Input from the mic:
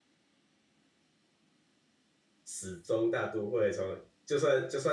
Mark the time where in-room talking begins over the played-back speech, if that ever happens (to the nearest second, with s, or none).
2 s